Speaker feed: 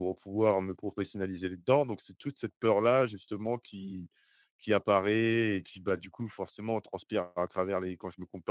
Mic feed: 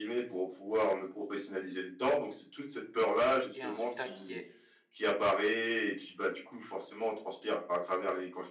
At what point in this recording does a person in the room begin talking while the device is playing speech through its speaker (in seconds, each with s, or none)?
3.5 s